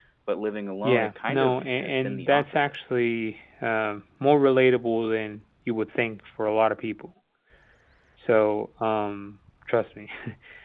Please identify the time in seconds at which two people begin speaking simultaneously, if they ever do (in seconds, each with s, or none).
0.8 s